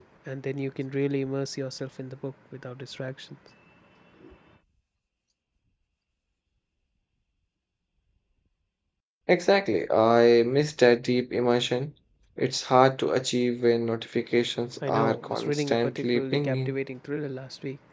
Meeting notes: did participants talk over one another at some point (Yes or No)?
Yes